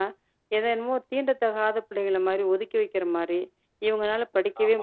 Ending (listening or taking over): listening